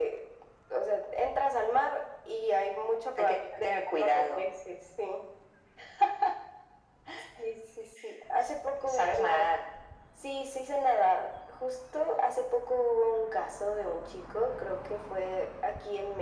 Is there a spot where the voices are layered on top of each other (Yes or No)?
Yes